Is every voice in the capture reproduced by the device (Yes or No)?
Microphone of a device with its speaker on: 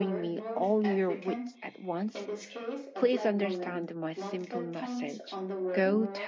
No